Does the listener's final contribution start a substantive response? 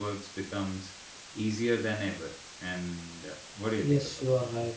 Yes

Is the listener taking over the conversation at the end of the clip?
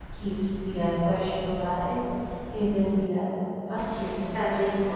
Yes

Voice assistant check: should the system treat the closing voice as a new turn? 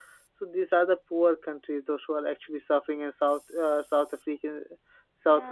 No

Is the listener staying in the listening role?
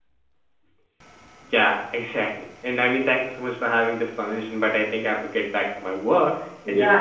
No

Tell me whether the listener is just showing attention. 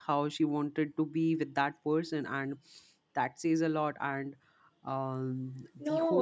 No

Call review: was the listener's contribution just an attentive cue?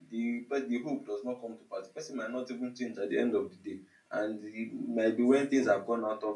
Yes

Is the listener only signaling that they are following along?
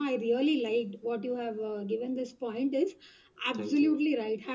Yes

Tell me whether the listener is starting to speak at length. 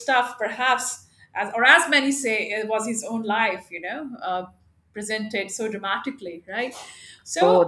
Yes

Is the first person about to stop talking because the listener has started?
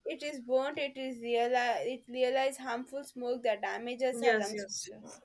Yes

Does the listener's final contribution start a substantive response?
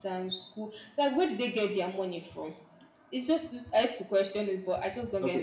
Yes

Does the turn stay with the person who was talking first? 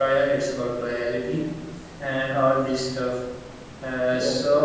Yes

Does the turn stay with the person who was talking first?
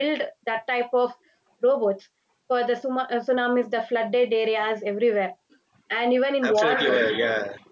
No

